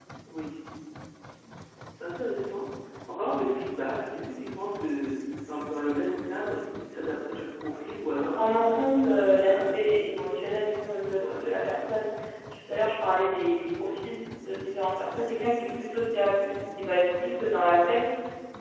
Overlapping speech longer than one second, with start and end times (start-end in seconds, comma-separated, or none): 8.1-10.1